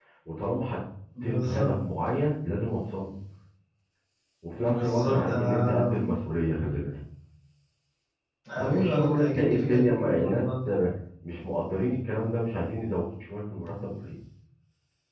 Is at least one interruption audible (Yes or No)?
Yes